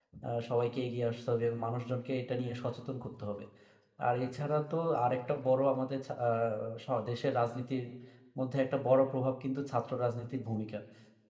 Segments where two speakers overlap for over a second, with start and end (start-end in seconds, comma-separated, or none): none